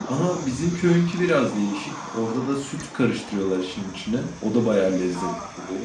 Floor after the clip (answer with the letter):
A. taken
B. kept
A